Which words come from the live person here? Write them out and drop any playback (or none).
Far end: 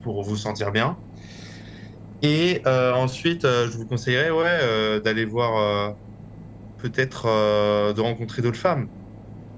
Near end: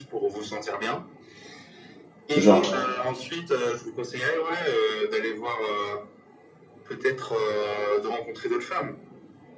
c'est ça.